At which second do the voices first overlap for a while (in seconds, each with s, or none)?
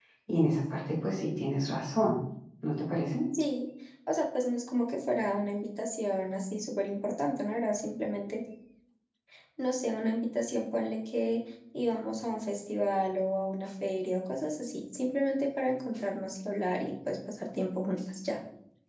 none